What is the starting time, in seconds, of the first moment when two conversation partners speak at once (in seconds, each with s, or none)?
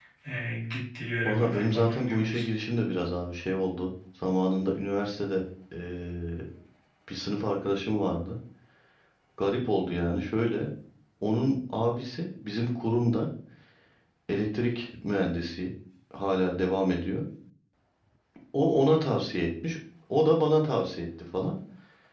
1.2 s